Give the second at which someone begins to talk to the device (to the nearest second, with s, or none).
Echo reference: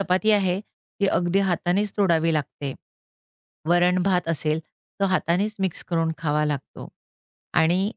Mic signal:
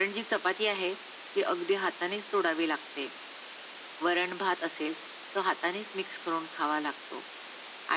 none